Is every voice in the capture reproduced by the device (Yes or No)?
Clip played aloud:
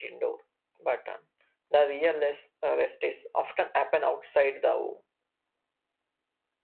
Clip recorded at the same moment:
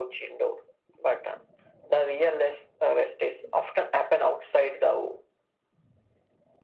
Yes